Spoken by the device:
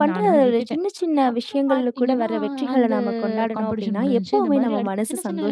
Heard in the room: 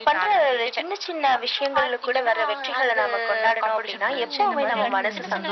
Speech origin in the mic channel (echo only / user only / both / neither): both